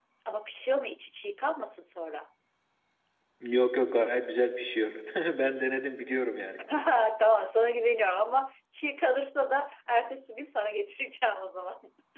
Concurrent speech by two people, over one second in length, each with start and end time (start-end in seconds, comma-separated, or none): none